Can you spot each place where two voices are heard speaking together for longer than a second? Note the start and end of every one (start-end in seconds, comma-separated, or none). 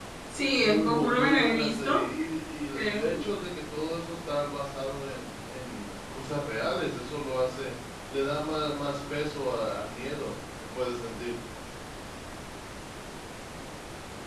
0.6-2.0